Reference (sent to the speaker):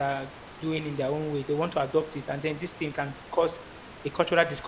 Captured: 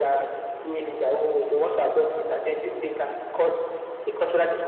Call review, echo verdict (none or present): present